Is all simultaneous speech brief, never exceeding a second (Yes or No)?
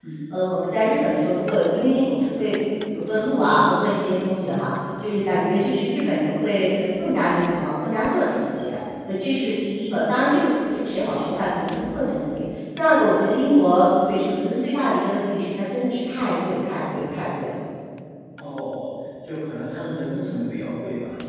Yes